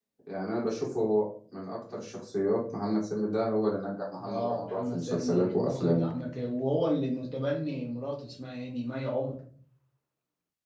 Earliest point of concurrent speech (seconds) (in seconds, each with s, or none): 4.2 s